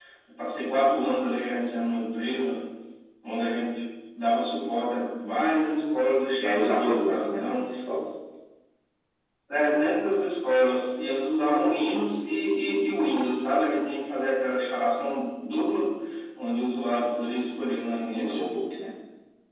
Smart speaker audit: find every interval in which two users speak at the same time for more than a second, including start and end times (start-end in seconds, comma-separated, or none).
6.4-7.7